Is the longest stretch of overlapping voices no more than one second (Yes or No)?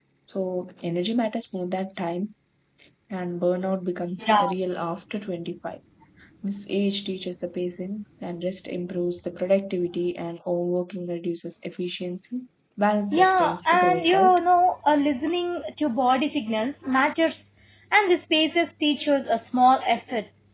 No